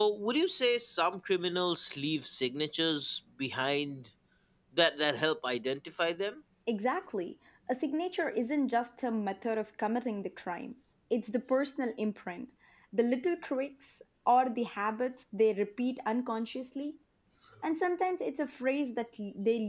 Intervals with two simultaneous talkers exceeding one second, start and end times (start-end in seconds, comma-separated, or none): none